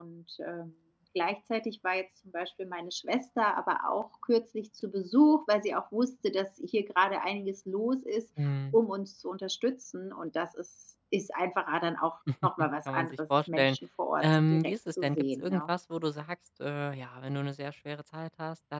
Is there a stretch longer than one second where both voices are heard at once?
Yes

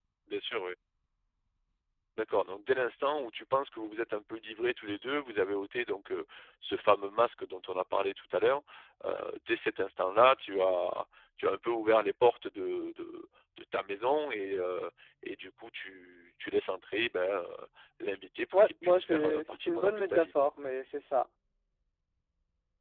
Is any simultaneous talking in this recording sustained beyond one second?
Yes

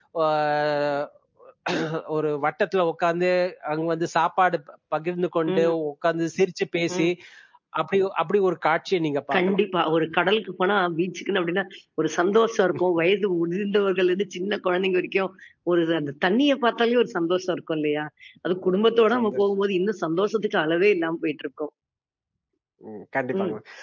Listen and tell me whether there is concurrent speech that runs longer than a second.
No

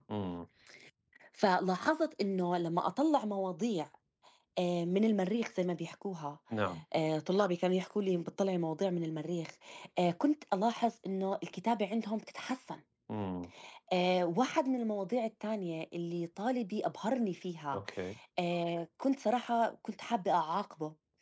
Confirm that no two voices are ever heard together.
Yes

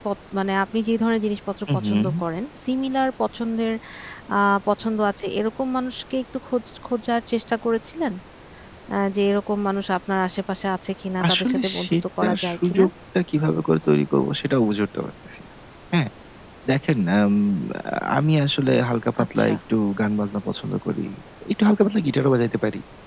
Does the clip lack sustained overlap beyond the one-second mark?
No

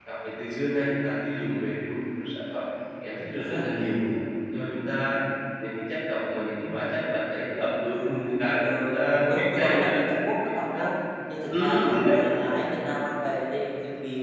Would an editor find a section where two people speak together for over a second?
Yes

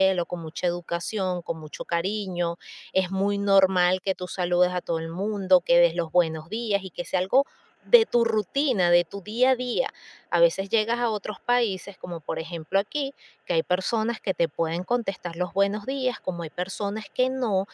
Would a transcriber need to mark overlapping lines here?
No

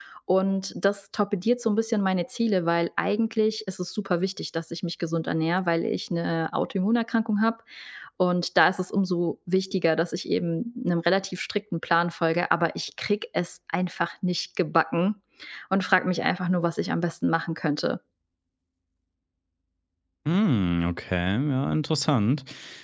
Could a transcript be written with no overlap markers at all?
Yes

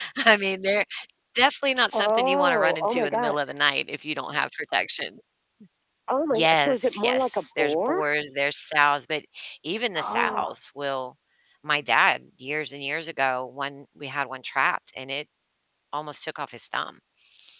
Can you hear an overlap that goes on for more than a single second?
Yes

